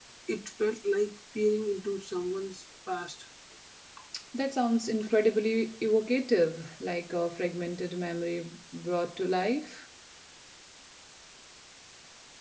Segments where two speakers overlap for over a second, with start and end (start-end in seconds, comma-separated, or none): none